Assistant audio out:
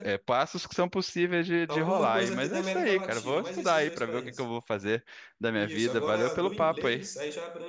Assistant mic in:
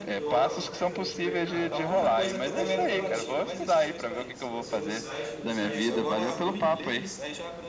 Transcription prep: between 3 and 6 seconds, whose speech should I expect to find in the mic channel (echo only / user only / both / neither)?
both